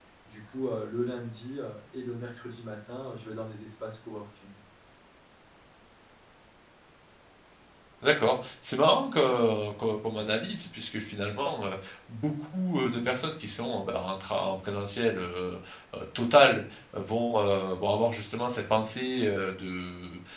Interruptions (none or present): none